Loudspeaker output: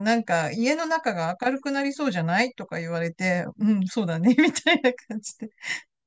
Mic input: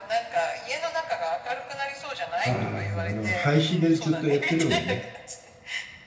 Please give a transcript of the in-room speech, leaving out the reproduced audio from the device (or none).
ああ、あの、配信でずっとやってるもんね。